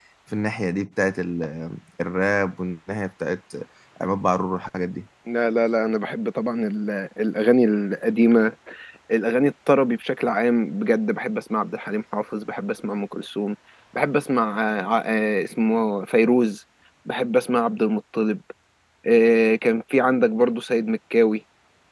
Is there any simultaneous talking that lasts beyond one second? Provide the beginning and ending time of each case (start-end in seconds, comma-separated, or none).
none